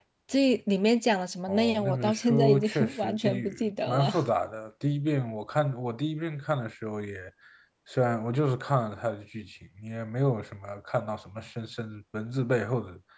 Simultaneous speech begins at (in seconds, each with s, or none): 1.5 s